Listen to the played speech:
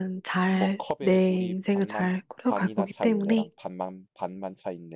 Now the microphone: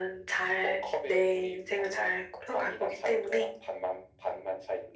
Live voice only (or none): none